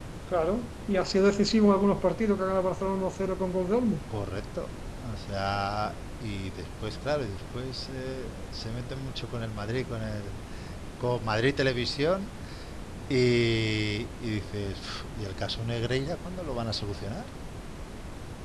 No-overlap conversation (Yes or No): Yes